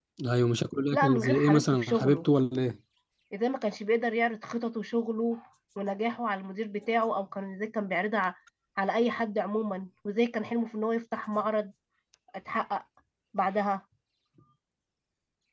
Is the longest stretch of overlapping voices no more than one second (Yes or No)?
No